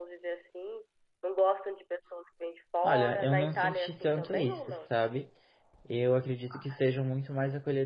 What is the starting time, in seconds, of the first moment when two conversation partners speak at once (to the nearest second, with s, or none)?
3 s